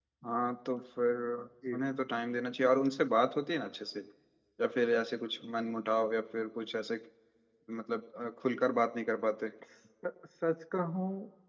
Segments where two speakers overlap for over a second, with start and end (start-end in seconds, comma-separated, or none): none